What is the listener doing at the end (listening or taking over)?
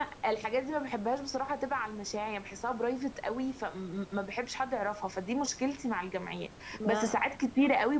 listening